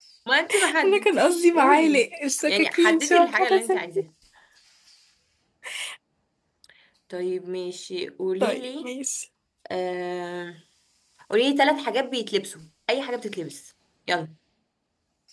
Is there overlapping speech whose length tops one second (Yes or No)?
Yes